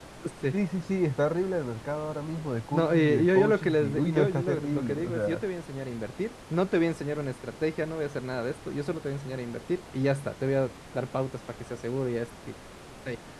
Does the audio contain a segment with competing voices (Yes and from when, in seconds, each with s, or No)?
Yes, from 2.7 s